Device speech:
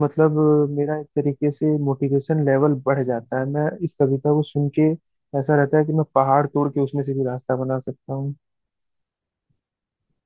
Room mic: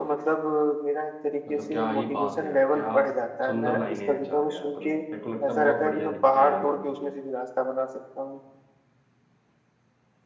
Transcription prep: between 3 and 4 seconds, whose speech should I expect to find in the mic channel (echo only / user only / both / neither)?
both